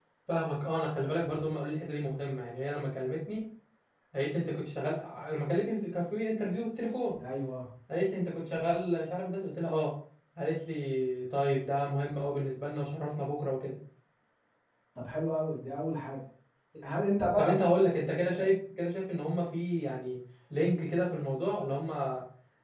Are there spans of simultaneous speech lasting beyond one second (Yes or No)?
No